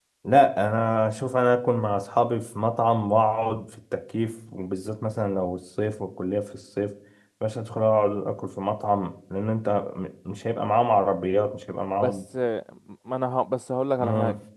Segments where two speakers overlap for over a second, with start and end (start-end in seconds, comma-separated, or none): none